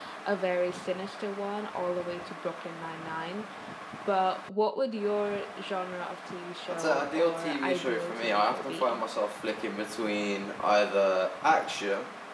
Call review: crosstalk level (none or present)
present